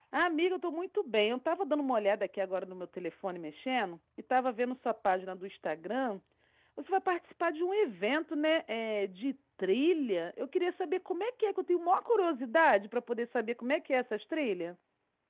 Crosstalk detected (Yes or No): No